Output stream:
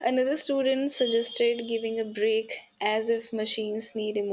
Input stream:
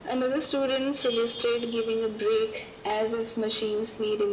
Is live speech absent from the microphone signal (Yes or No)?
Yes